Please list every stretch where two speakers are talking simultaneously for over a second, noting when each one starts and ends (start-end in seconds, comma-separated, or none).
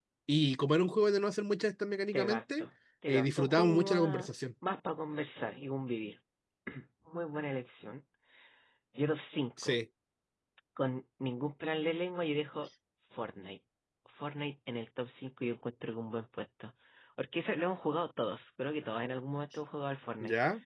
3.1-4.3